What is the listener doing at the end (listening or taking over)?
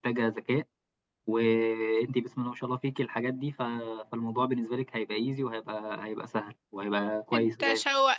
taking over